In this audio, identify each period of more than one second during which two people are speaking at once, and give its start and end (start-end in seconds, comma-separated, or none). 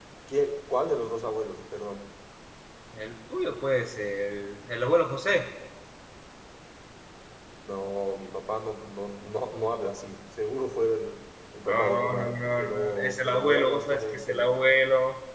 11.7-14.6